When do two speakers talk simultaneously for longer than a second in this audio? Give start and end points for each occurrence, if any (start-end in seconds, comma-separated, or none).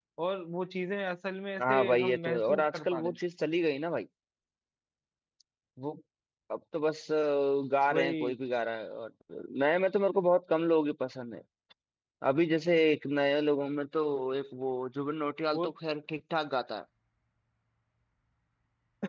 1.6-3.2